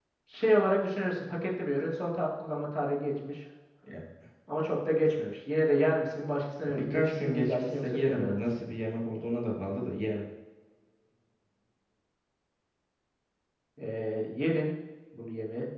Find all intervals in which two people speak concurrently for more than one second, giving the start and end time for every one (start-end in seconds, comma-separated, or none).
6.6-8.7